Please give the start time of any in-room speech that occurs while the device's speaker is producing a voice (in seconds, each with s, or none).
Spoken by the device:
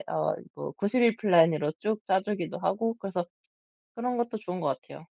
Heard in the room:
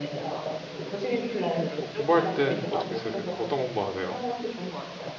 1.8 s